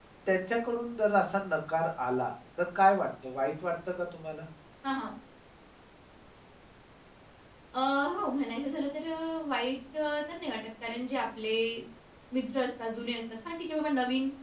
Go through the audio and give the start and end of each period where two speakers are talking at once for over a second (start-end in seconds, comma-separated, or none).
none